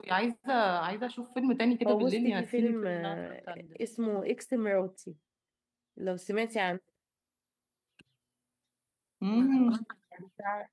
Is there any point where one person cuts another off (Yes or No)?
Yes